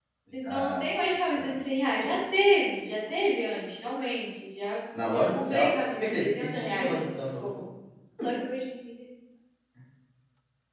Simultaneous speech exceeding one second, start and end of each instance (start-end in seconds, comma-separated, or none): 5.0-7.5